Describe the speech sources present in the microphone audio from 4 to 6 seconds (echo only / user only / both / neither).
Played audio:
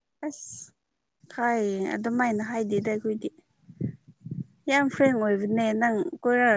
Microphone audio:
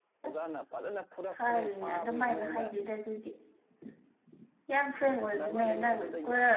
both